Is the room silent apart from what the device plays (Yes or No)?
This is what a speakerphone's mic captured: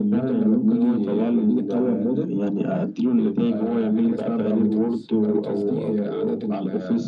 No